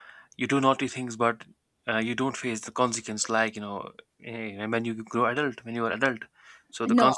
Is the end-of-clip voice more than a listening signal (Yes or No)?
Yes